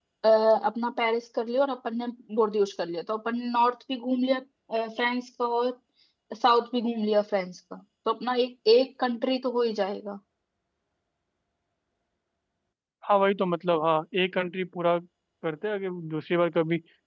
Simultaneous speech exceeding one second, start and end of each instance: none

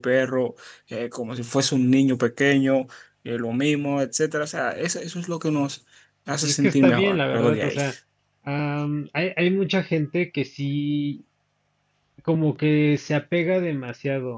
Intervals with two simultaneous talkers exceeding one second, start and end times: 6.4-7.8

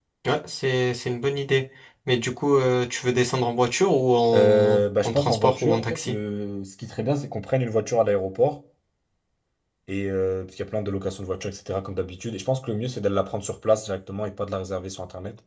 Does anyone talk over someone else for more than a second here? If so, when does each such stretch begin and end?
4.3-6.2

